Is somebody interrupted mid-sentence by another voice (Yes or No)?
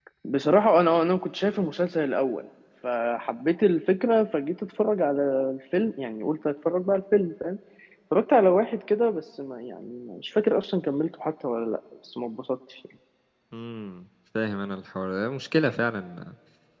No